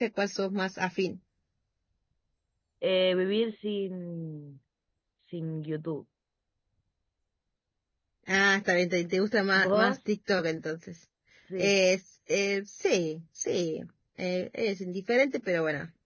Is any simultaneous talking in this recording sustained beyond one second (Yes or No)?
No